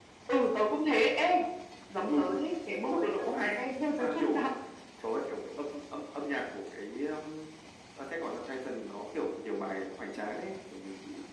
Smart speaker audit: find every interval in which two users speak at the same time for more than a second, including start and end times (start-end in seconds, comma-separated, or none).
2.7-4.5